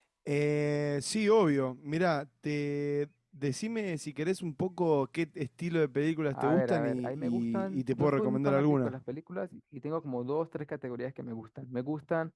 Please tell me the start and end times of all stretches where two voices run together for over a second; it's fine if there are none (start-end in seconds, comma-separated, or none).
6.3-8.9